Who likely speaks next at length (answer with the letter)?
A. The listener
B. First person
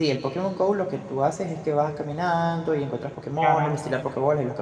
B